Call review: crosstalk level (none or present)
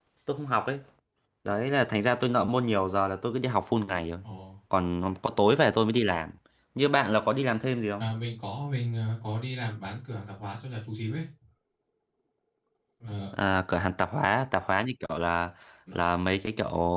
none